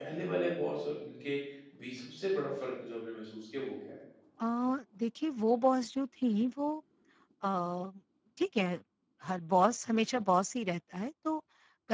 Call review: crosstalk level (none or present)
none